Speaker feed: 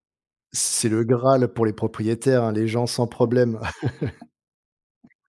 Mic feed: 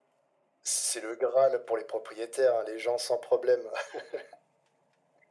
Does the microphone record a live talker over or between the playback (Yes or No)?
No